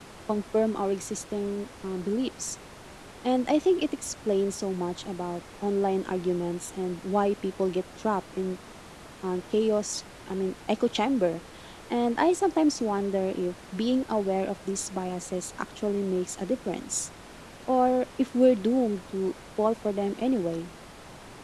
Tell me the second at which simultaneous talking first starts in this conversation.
none

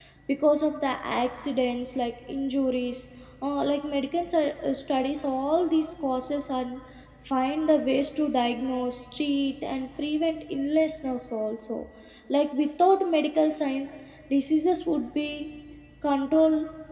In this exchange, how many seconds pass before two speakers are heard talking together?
none

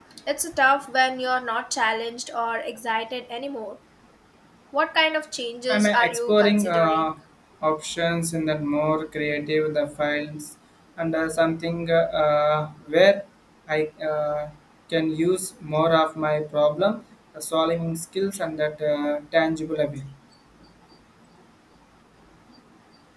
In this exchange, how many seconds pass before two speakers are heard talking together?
5.7 s

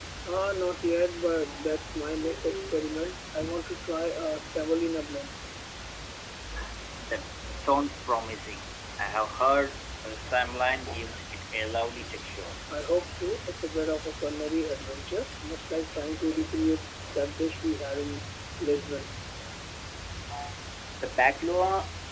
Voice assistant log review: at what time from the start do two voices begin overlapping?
none

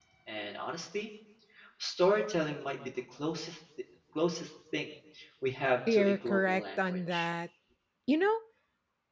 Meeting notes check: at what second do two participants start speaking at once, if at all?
5.9 s

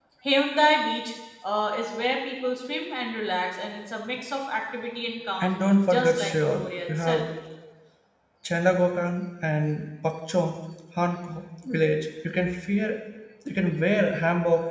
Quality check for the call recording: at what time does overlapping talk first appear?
5.9 s

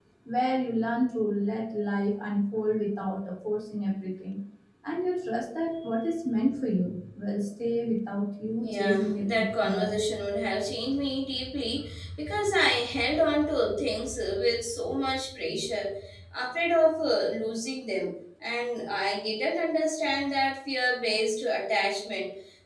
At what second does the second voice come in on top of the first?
8.6 s

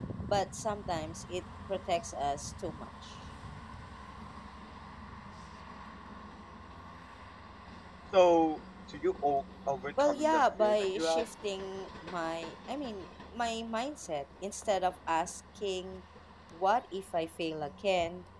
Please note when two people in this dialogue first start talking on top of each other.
10.0 s

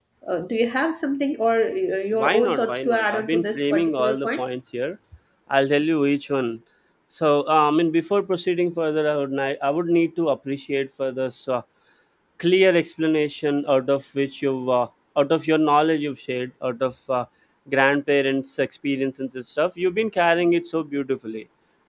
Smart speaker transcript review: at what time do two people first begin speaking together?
2.1 s

